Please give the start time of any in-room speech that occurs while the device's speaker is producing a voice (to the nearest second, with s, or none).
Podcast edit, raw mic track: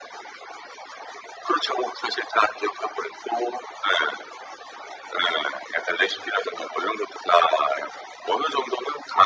none